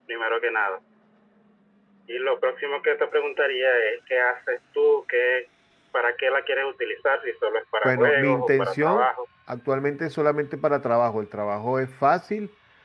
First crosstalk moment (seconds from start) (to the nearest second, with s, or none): 8 s